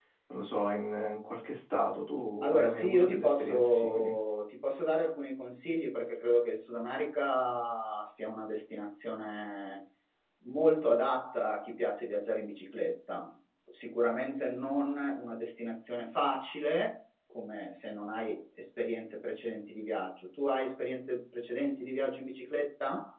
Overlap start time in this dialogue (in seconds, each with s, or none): 2.4 s